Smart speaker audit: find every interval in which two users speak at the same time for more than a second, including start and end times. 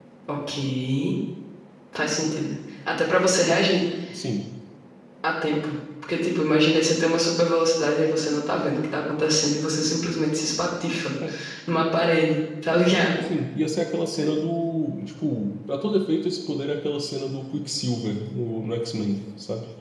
none

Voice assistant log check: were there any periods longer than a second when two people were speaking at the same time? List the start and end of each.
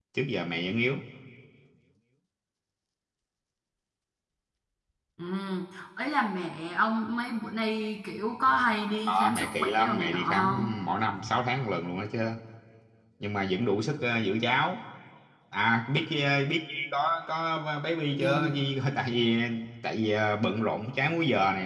9.1-10.4

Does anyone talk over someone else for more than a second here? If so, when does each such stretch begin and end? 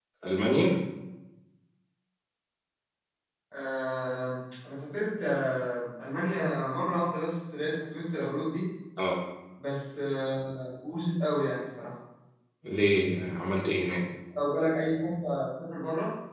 none

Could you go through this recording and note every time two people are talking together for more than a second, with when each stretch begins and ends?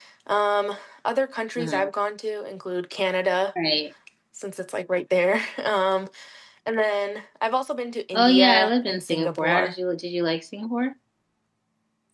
8.1-9.7

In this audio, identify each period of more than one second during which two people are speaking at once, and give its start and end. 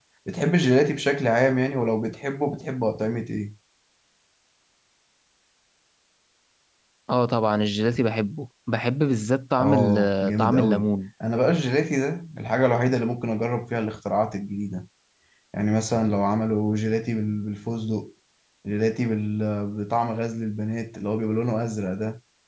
9.6-10.9

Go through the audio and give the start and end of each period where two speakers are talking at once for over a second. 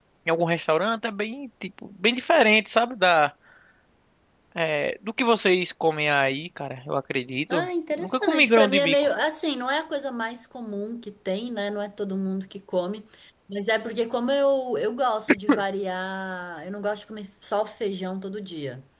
7.5-9.0

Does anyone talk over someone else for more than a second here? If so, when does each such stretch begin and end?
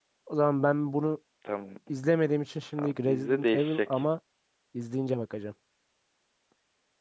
2.8-4.0

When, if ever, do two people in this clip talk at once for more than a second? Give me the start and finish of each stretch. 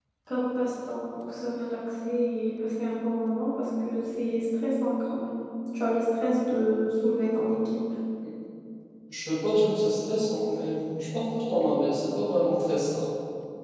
none

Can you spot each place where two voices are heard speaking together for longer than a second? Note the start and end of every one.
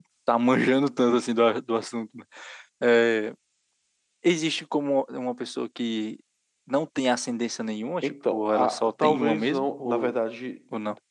8.0-10.2

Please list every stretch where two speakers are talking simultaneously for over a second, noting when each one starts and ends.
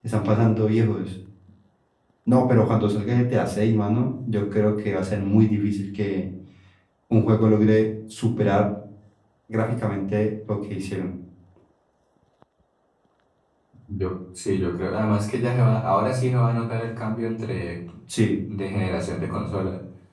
none

